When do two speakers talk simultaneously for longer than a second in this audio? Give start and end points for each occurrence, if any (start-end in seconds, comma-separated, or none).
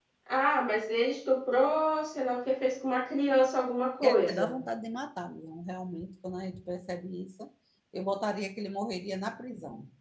none